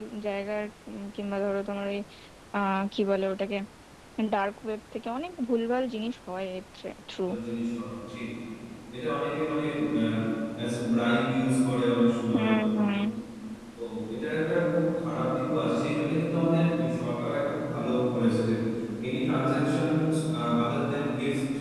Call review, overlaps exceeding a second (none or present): none